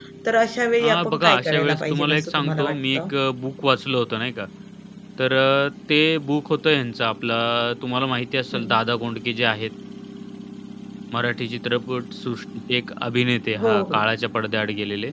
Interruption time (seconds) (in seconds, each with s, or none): 0.8 s